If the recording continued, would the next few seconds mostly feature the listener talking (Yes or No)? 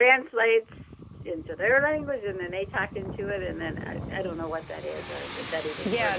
Yes